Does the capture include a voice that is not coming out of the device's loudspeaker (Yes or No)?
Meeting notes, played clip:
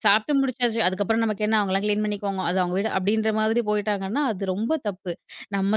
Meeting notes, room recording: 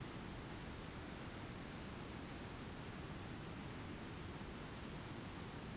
No